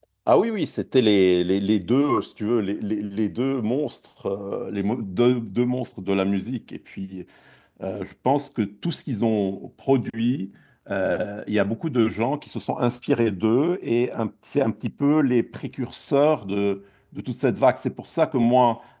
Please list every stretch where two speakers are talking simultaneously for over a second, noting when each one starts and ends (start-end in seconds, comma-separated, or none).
none